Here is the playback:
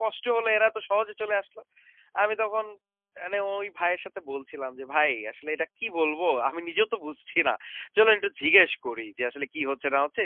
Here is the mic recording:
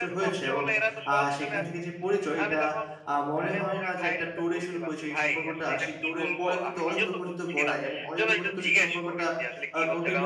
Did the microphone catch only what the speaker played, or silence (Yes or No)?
No